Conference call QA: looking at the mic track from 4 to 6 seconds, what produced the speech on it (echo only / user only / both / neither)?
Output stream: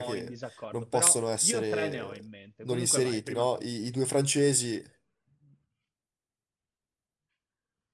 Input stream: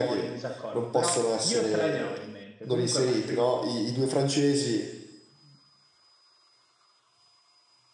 echo only